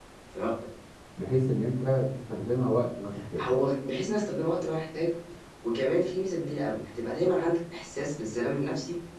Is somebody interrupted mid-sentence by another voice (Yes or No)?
No